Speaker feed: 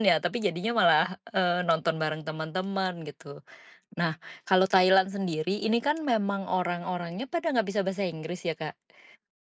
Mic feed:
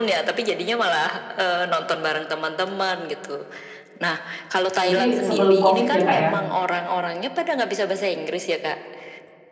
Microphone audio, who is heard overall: both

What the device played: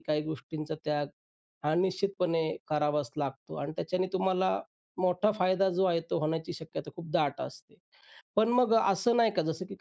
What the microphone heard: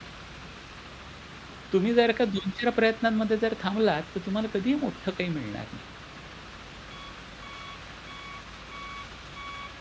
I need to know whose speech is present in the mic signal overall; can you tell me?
user only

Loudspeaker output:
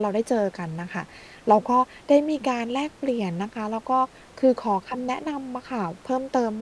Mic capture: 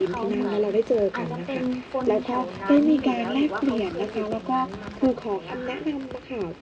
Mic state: both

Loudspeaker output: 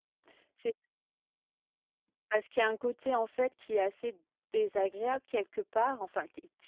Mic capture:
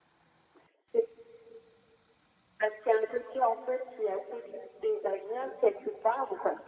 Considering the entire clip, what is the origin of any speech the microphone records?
echo only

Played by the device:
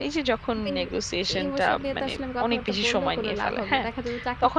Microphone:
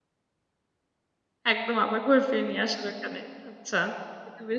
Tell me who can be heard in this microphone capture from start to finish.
user only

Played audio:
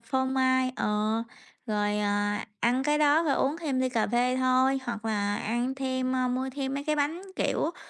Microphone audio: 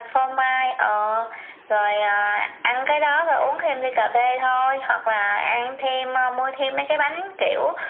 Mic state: echo only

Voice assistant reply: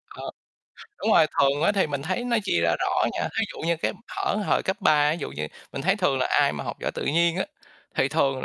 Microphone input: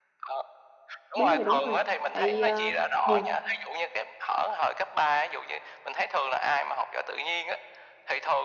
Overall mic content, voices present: both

